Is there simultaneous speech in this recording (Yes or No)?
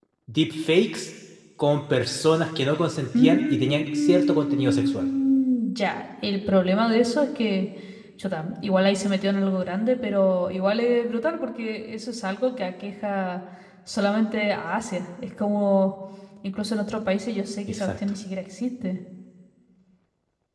Yes